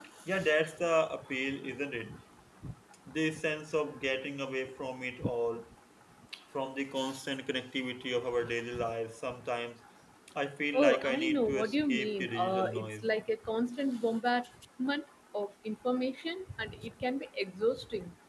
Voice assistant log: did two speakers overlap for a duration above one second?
Yes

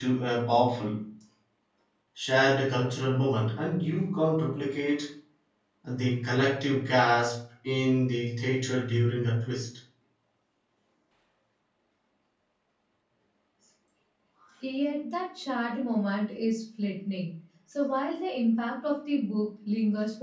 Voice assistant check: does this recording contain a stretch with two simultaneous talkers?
No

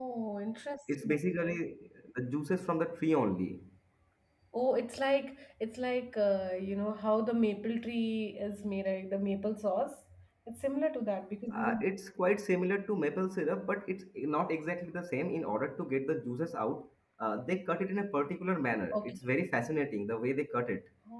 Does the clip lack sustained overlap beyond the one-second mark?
Yes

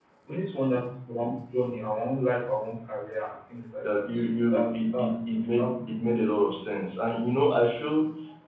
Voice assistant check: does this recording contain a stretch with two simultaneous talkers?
Yes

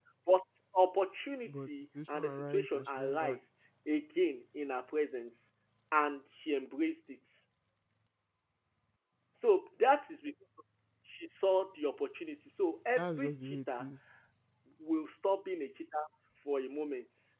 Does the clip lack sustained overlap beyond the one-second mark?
No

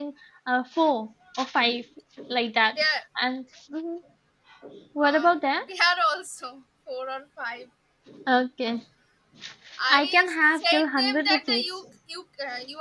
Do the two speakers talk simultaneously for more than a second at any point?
Yes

